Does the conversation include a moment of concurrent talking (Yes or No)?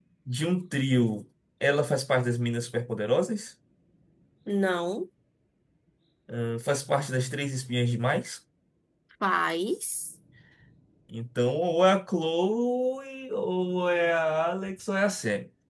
No